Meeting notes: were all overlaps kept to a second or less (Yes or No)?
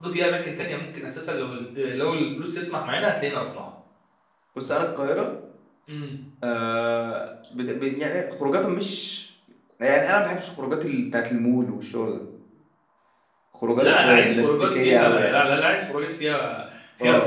No